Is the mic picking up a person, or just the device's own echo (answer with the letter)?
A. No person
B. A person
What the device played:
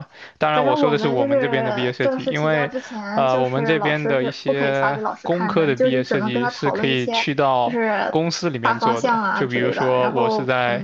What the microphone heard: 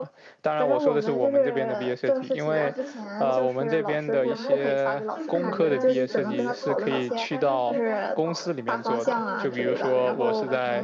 B